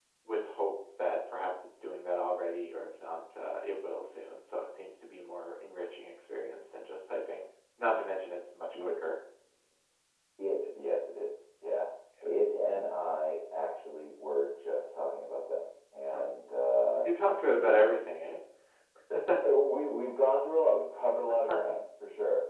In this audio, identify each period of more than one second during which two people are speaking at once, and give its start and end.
none

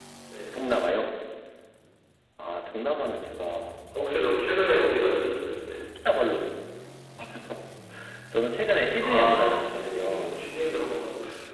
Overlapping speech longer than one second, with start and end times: 9.0-10.4

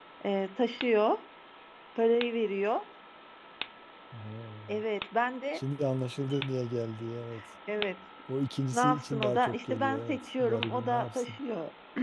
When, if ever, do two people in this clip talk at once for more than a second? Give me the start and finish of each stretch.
8.7-11.4

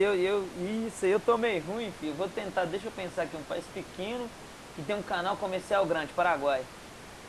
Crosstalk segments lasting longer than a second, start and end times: none

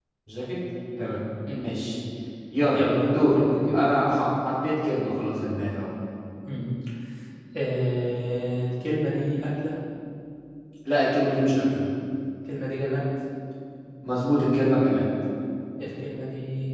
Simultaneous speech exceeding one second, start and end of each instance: 2.7-4.2

